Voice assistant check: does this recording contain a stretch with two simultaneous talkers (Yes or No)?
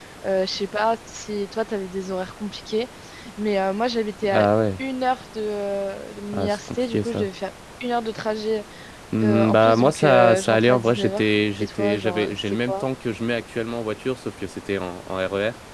Yes